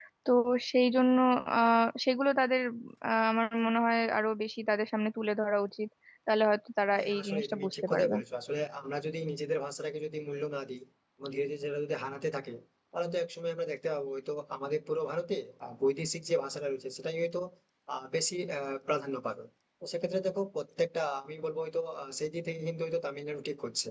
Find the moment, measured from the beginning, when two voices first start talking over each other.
6.9 s

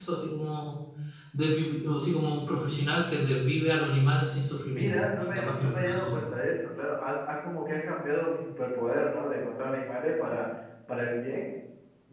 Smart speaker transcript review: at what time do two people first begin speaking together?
4.7 s

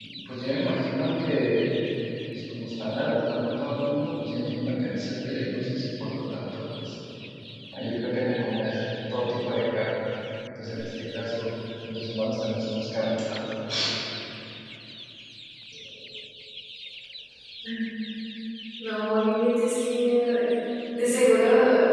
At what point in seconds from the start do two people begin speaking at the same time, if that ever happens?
none

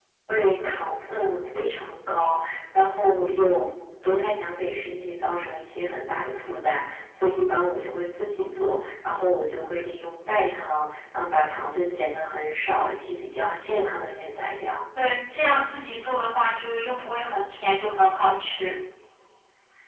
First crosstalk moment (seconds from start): none

